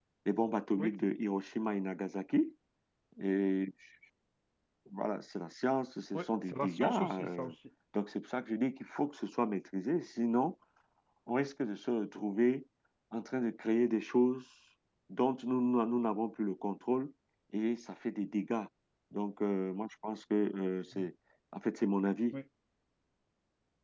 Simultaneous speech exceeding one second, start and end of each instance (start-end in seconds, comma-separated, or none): 6.1-7.5